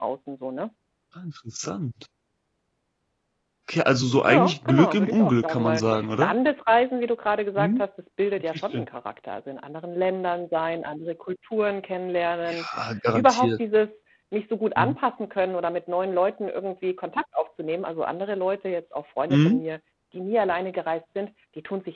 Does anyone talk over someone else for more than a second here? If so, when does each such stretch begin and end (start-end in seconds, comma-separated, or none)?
4.3-5.8